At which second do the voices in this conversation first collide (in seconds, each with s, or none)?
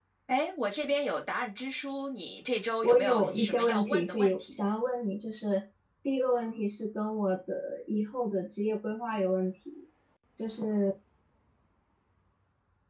2.8 s